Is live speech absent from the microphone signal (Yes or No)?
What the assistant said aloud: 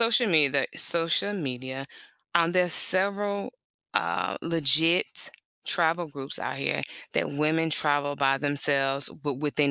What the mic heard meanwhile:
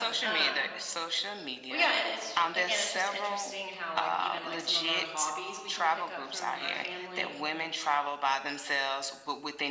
No